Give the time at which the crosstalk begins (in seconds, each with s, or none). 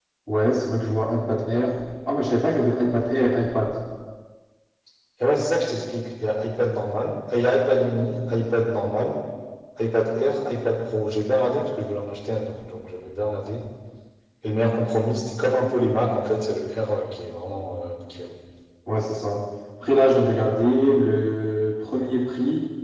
none